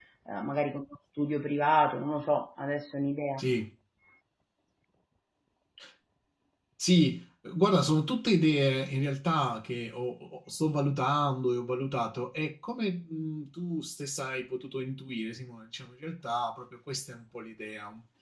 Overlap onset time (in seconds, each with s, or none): none